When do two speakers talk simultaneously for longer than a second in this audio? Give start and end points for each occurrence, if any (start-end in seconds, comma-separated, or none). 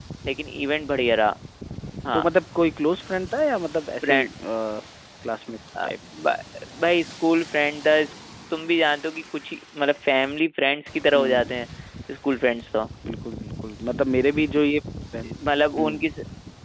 none